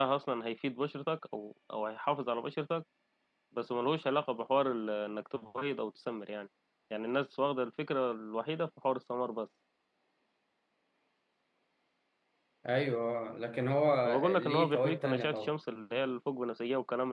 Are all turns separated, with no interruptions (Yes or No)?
No